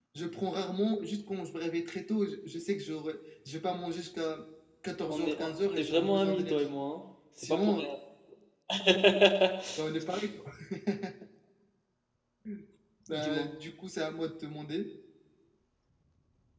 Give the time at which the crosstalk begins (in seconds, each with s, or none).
5.1 s